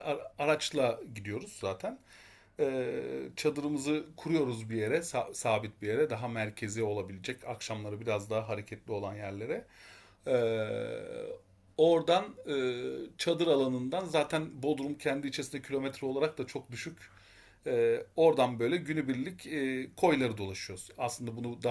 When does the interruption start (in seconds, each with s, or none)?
none